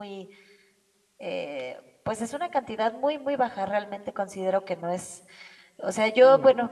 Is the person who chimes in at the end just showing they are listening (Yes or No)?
Yes